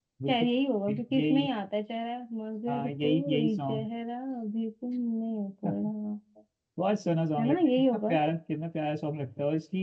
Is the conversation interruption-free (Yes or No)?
No